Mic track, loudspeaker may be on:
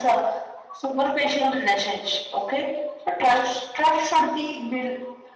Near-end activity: none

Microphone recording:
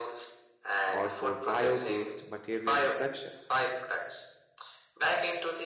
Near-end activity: present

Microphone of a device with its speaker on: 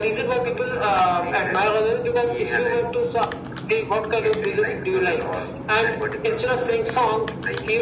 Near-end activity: none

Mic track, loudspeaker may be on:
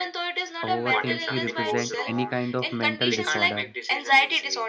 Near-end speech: present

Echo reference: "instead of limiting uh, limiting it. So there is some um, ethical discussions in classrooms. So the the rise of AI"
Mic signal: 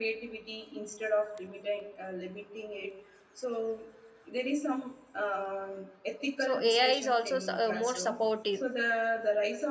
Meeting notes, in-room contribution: present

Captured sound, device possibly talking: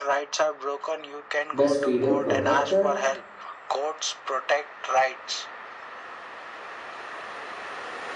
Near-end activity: present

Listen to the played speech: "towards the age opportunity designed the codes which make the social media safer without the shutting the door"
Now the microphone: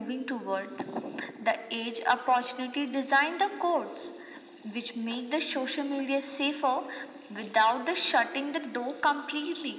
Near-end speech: none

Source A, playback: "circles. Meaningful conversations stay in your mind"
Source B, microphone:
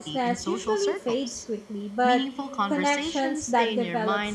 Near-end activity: present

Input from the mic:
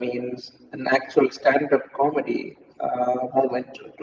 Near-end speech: none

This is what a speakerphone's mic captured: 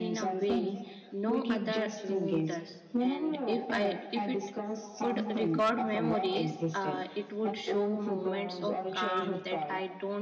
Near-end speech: present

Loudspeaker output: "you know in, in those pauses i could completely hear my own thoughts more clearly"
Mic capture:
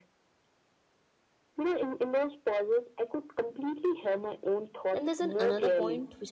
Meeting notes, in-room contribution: present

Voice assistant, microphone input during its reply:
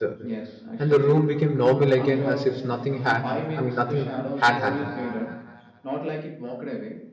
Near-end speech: present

